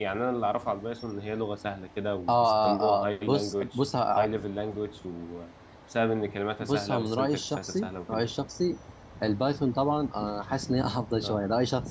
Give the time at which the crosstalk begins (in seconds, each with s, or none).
2.3 s